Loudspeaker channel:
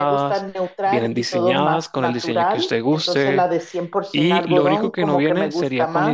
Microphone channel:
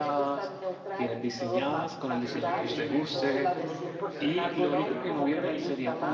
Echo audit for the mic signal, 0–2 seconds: echo only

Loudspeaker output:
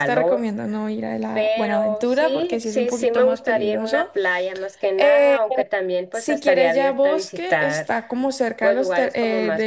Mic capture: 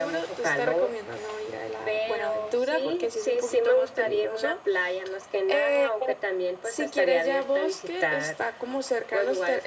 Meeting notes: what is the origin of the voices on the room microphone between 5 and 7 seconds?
echo only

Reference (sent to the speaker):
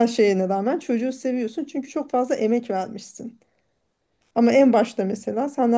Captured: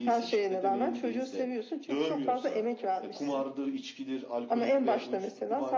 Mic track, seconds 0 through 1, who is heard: both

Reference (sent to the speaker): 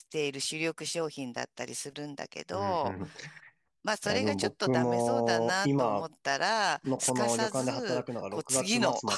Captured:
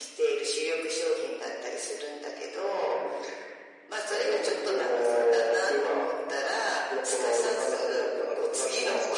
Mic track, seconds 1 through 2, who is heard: echo only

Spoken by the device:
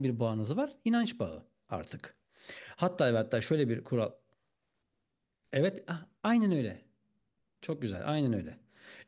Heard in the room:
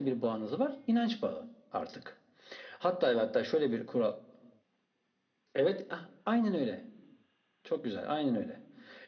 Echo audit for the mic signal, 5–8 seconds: echo only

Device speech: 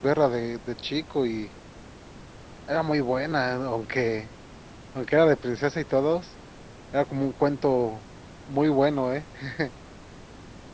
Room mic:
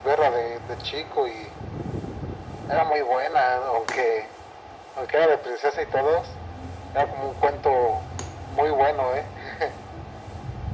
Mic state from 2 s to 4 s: echo only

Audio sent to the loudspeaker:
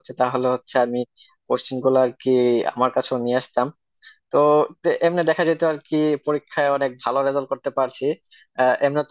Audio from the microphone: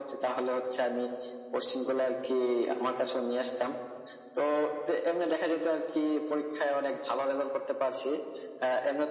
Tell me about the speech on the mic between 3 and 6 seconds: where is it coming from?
echo only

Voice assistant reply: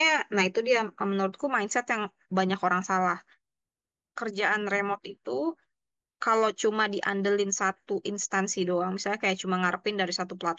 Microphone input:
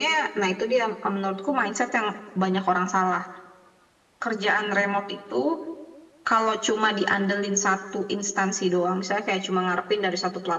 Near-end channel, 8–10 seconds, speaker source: echo only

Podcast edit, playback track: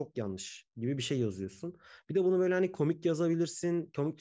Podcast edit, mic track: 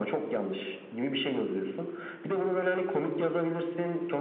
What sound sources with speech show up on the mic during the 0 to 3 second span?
echo only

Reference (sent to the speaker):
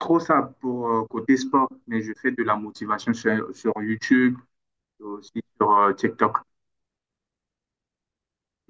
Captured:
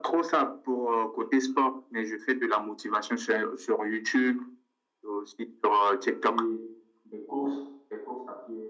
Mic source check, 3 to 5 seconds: echo only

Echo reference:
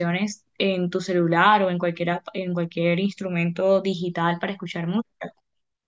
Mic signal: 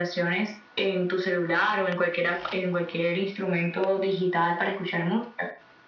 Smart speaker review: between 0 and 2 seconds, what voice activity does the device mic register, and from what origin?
echo only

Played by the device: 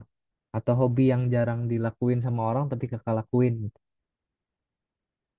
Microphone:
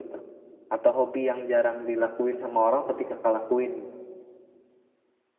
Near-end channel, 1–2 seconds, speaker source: echo only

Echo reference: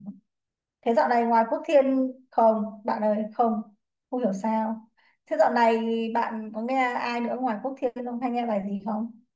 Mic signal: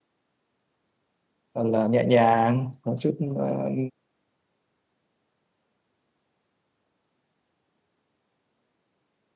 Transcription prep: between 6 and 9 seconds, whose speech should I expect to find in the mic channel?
neither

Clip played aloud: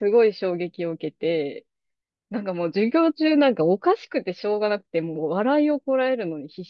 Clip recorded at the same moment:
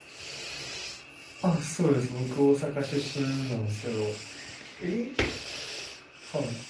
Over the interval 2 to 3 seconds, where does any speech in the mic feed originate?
user only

